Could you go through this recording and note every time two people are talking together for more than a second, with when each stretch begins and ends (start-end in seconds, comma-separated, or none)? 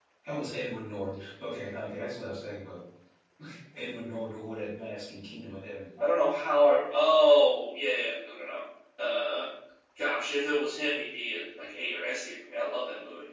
none